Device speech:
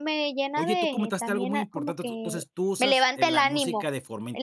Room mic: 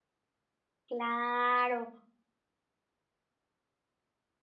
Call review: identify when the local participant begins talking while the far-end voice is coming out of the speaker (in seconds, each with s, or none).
0.9 s